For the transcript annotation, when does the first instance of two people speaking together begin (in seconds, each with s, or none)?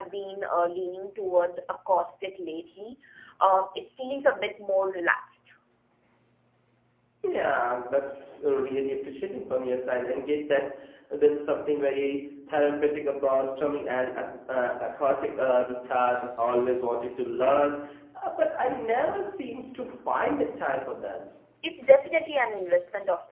none